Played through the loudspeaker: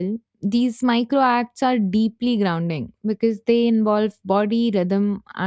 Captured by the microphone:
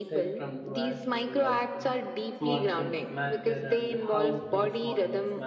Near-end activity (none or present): present